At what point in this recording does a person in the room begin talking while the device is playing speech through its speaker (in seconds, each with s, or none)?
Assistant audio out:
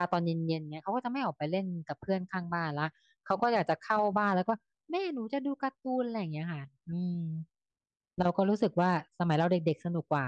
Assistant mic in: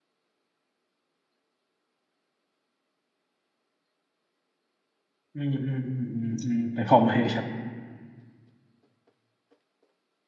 5.3 s